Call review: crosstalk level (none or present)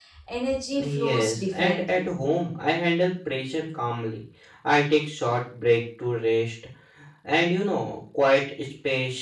present